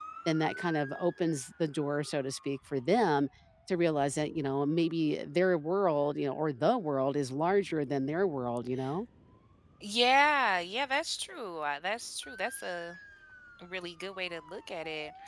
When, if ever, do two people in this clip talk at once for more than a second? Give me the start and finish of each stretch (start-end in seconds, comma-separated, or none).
none